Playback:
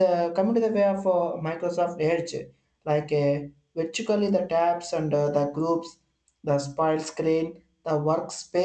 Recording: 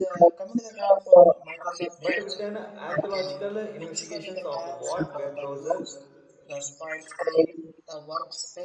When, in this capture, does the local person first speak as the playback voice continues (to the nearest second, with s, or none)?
2 s